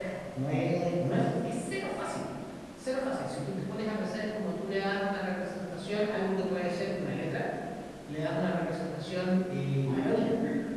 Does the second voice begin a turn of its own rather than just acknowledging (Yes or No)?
Yes